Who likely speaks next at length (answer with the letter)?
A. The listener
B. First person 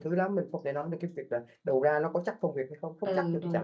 A